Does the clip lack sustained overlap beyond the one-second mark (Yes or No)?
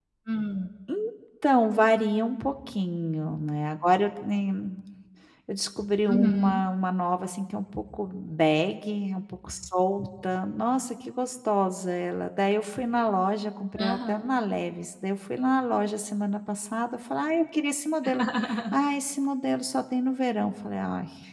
Yes